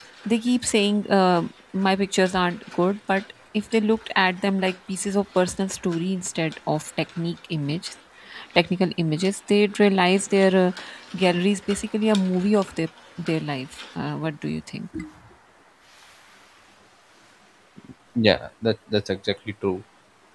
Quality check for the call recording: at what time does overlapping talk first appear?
none

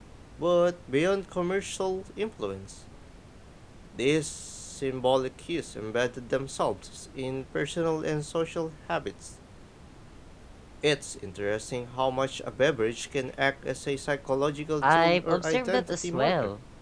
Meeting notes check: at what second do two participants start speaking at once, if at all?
15 s

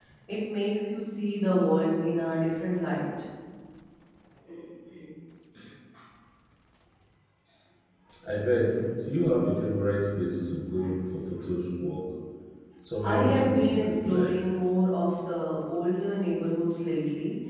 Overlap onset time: 13 s

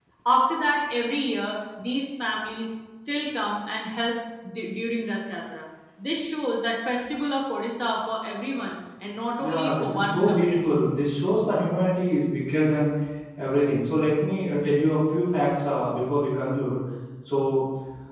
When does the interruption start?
9 s

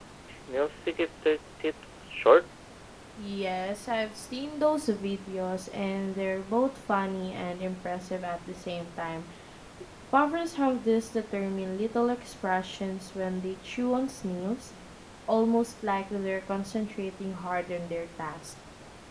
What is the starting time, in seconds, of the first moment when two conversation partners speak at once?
none

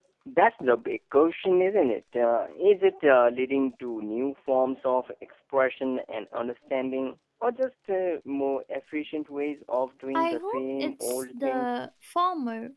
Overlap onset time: 10 s

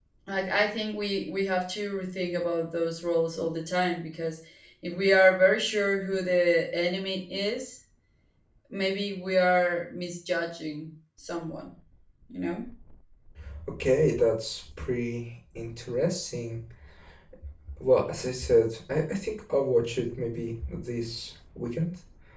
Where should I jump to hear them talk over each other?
none

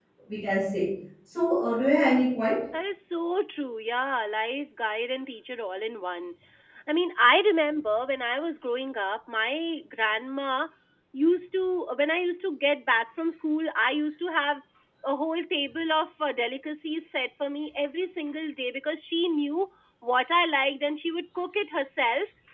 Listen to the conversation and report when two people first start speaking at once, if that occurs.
none

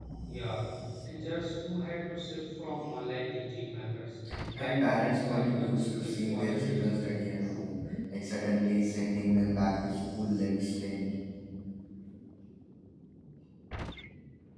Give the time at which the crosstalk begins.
5 s

